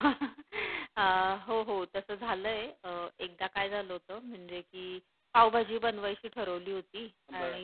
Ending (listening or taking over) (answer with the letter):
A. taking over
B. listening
B